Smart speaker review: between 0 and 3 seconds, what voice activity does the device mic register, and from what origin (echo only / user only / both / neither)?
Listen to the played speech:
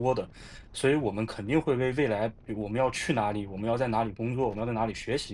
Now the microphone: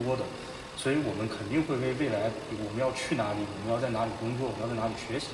echo only